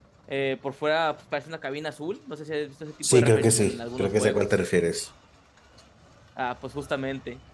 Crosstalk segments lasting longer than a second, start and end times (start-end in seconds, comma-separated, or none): 3.1-4.5